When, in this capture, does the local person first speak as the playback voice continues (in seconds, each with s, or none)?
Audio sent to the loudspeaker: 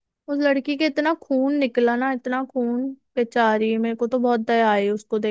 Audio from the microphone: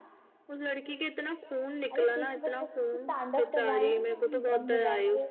1.9 s